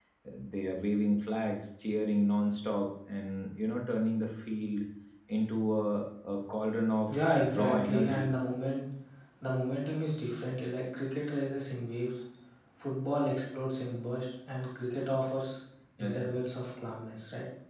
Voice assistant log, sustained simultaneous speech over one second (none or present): present